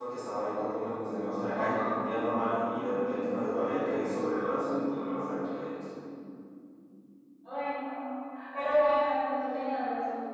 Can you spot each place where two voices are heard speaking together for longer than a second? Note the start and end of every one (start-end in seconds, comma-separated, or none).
none